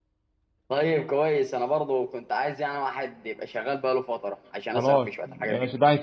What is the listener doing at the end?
taking over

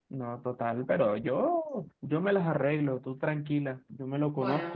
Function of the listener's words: listening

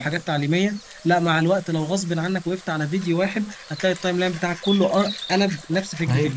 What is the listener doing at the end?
taking over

